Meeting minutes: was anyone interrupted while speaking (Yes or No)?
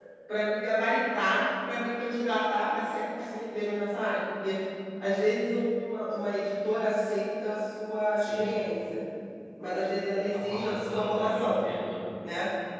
Yes